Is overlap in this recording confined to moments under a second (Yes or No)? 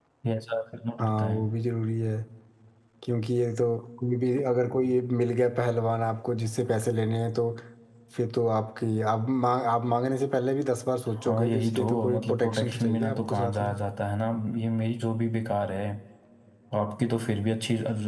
No